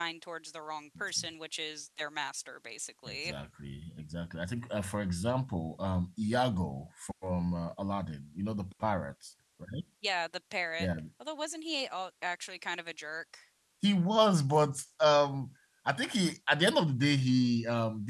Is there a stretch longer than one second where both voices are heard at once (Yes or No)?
No